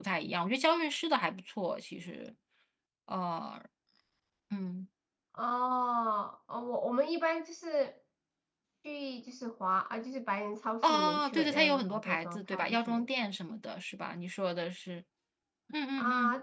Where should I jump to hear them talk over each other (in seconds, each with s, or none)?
10.8 s